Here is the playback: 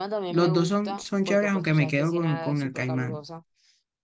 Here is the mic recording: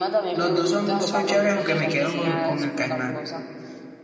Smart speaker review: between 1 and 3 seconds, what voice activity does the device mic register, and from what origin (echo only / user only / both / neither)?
both